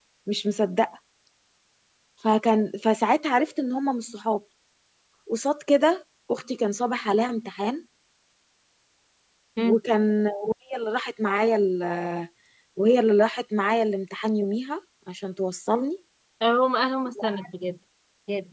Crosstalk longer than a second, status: none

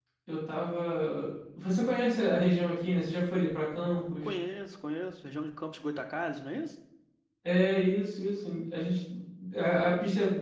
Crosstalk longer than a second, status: none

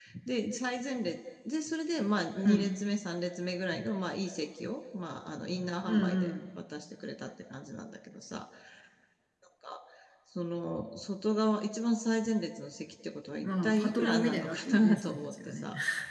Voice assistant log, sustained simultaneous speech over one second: present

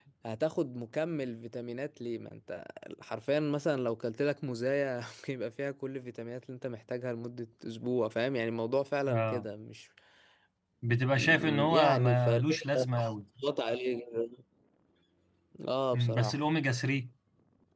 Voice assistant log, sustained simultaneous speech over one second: present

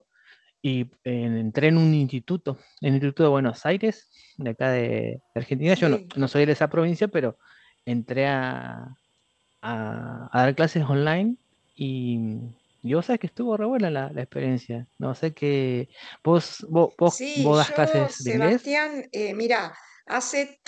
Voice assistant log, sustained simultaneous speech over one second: present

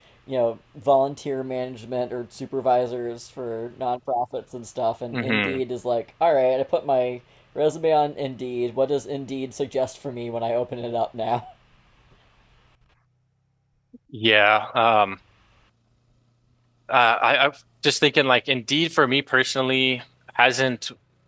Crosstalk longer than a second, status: none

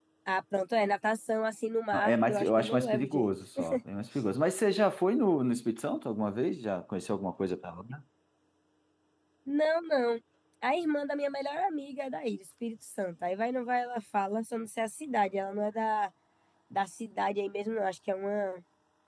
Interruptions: present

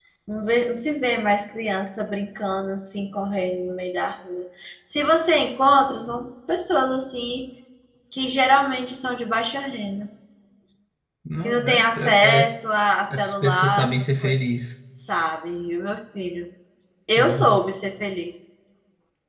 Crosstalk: present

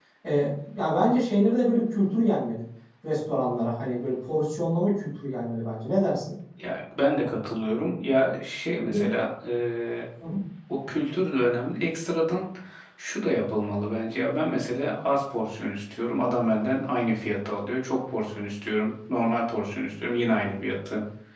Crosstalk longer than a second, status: none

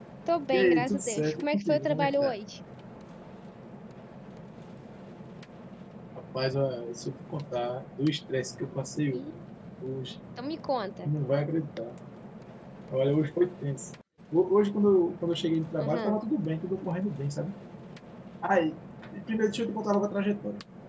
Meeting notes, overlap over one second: present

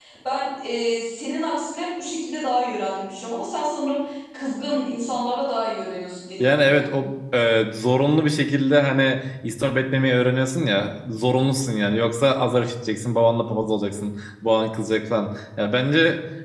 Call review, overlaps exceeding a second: none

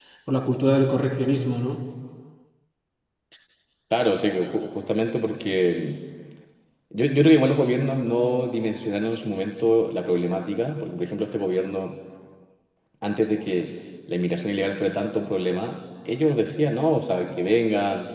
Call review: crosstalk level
none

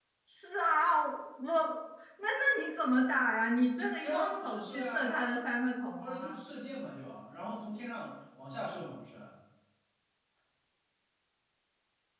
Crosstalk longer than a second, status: present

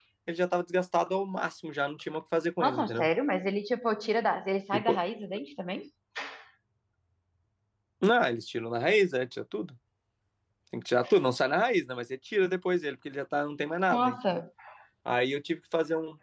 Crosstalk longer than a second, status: none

